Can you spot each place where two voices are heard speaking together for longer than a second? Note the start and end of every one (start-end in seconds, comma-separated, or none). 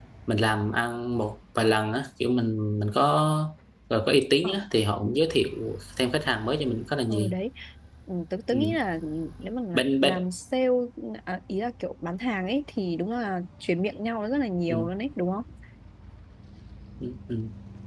none